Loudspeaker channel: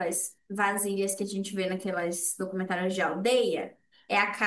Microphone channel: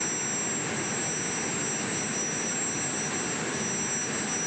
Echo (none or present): none